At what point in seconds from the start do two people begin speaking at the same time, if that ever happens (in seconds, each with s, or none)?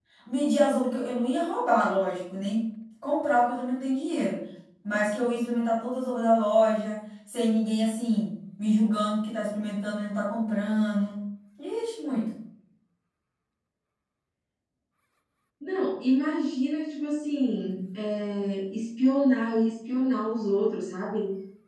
none